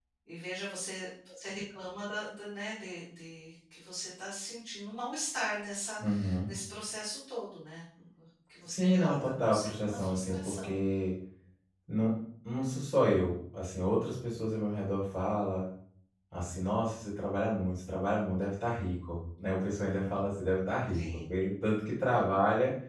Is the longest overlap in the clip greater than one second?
Yes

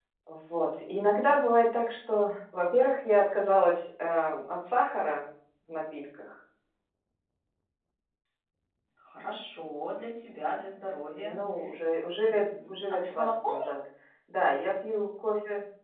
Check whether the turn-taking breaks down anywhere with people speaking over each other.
Yes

